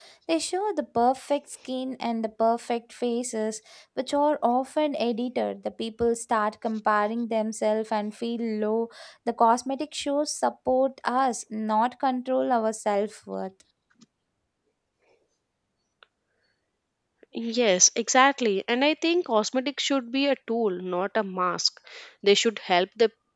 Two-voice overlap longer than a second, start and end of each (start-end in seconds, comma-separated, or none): none